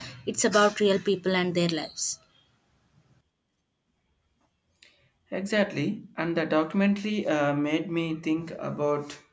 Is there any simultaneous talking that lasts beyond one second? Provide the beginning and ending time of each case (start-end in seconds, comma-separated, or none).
none